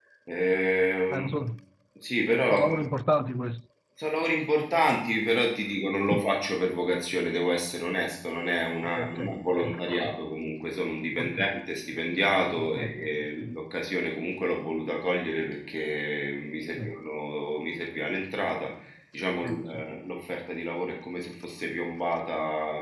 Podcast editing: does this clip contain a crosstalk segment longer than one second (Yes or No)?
Yes